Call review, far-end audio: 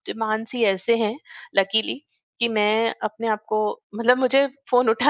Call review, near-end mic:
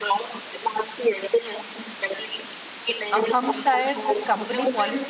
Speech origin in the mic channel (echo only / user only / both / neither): both